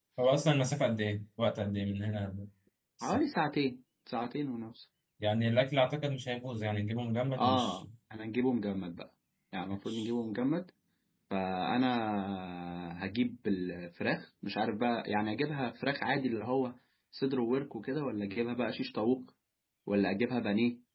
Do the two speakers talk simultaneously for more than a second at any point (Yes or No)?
No